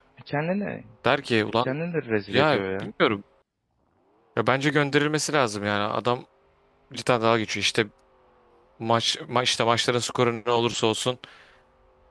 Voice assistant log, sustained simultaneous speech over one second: none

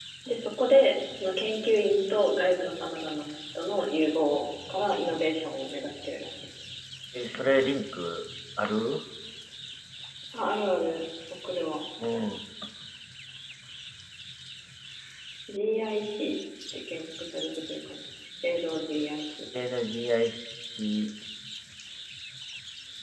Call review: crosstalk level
none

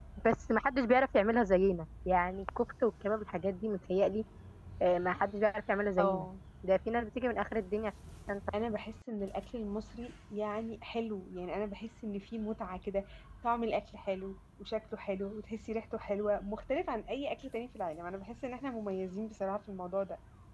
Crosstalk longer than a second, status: none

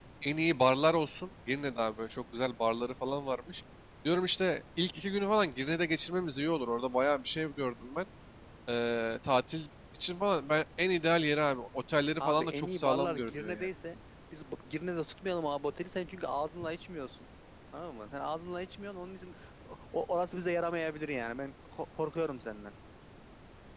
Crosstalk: present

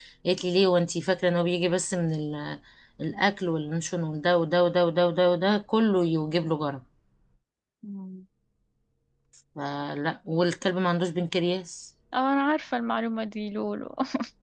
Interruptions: none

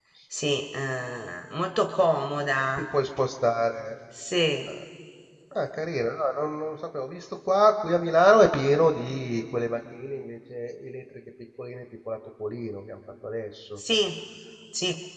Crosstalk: none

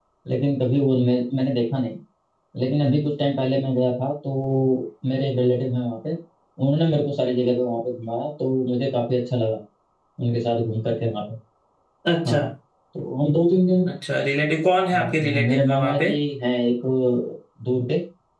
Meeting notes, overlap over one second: present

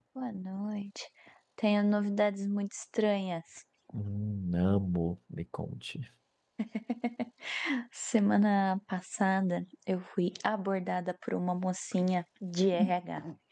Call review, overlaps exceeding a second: none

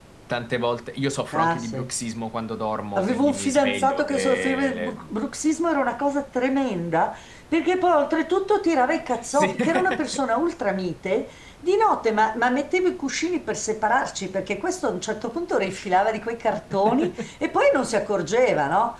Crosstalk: present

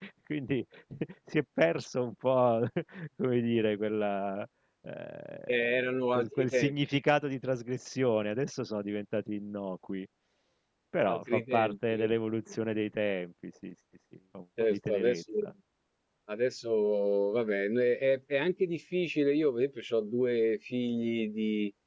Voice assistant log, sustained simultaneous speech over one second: present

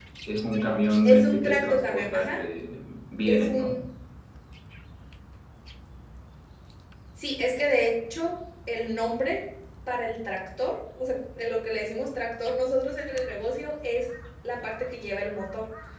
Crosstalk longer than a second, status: present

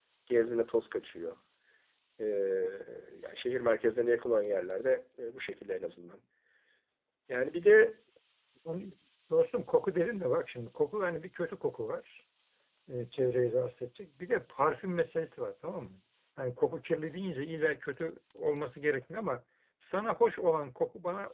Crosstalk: none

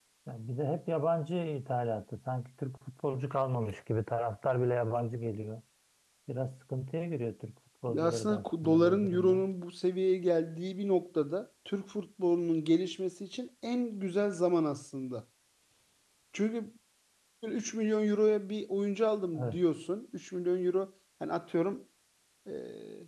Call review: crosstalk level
present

